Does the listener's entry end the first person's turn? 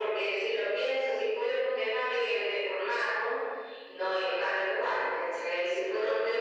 No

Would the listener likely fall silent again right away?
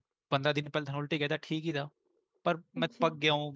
Yes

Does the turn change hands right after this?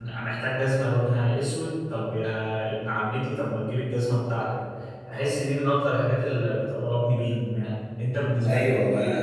Yes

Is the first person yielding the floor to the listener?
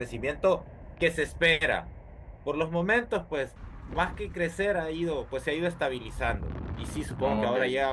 No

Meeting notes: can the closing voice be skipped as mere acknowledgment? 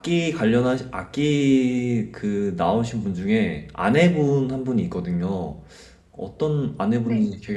Yes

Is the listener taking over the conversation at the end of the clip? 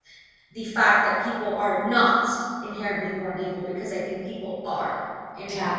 Yes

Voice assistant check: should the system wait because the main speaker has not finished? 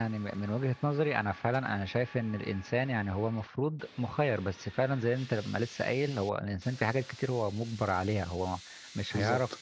Yes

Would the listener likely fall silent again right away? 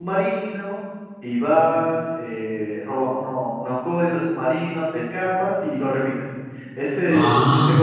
Yes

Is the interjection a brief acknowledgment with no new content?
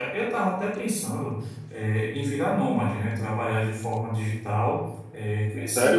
Yes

